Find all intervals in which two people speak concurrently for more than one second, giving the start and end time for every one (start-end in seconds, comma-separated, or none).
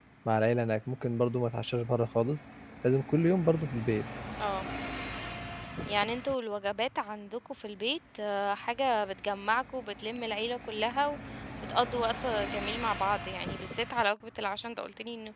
none